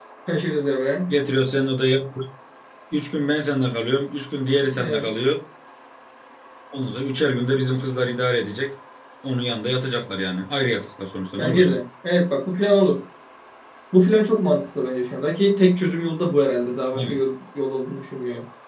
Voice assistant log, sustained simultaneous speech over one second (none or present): none